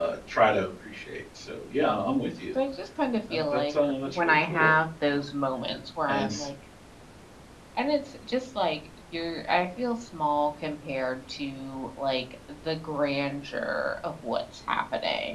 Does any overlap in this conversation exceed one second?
Yes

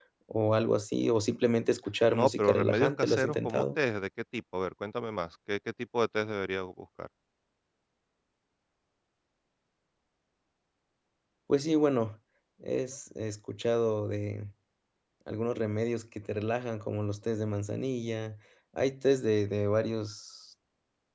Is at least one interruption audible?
Yes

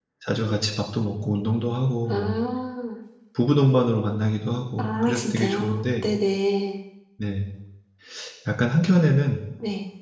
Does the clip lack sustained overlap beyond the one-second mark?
No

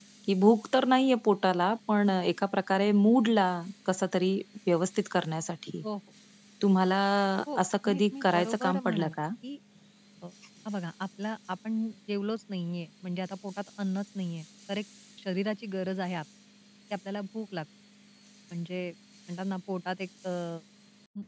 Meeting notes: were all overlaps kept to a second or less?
No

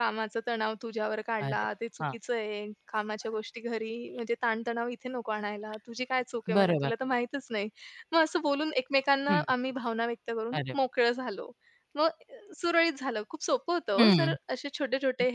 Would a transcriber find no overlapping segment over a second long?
Yes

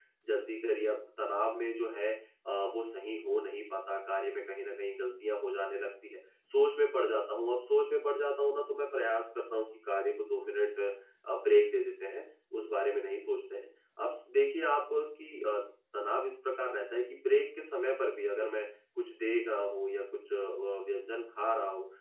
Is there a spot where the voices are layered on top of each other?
No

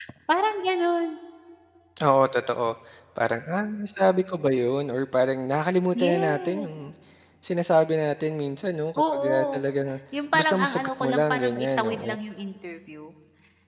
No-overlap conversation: No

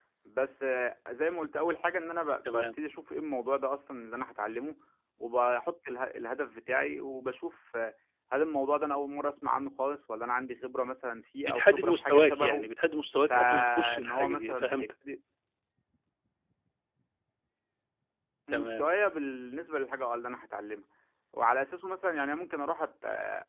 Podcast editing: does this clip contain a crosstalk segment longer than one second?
Yes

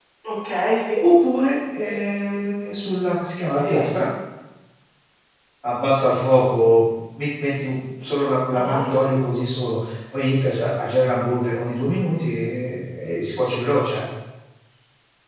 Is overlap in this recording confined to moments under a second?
Yes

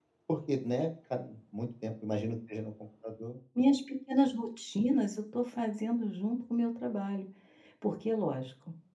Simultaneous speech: No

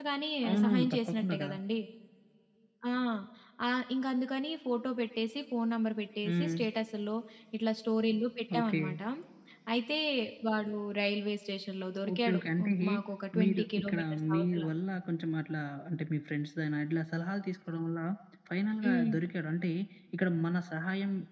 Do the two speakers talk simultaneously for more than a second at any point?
Yes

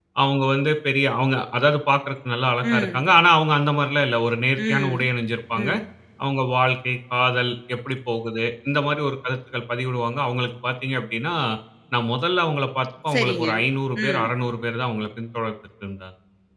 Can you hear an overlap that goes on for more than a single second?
No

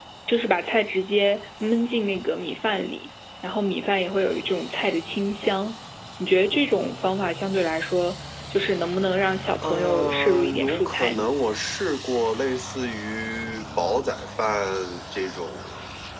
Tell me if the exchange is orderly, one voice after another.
No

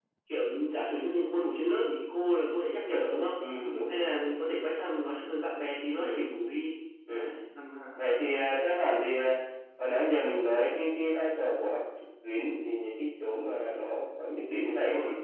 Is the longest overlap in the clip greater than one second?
No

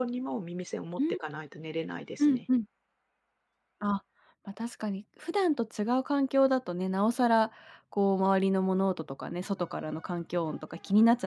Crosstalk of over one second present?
No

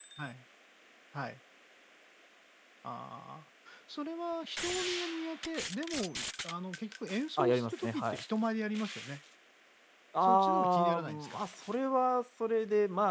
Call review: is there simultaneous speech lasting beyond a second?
Yes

